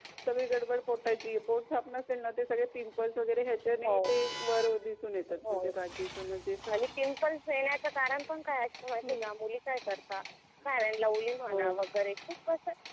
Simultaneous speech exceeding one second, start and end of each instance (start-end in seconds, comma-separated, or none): none